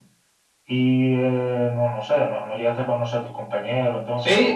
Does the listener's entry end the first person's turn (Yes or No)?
Yes